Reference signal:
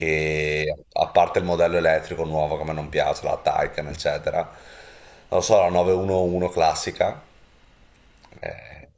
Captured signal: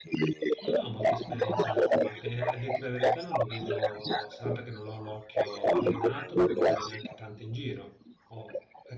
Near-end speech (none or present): present